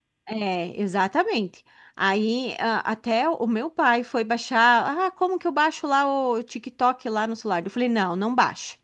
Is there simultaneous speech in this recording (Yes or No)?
No